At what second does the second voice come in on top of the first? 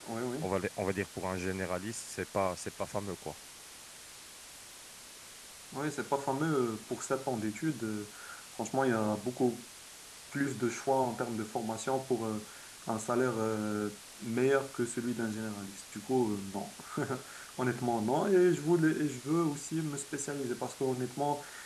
none

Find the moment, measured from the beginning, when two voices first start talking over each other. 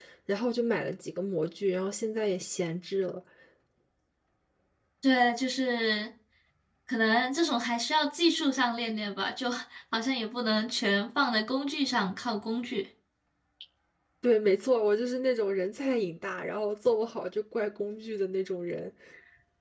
none

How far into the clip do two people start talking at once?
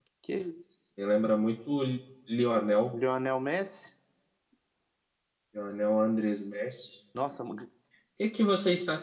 none

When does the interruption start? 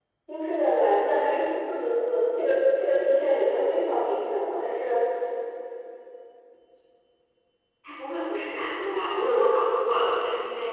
none

